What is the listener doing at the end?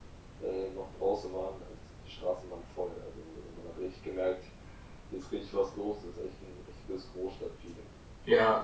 taking over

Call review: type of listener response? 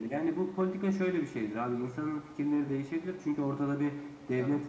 listening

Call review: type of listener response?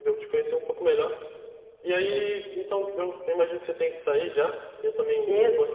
listening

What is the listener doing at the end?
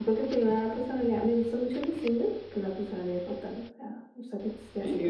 taking over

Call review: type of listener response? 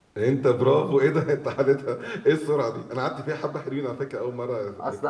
taking over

